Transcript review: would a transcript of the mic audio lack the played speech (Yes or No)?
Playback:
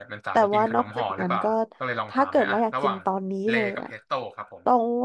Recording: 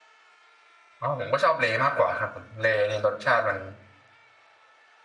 Yes